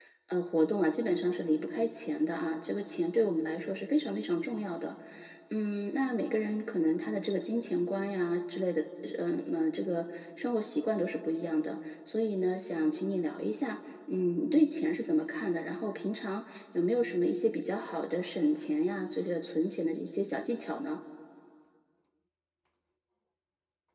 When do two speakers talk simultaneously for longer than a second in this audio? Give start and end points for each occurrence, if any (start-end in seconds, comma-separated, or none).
none